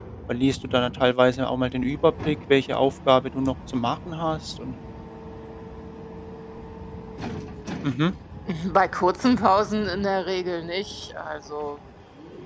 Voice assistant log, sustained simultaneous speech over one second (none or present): none